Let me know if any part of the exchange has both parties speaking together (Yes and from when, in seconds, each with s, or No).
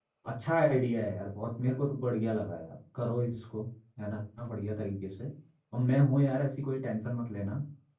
No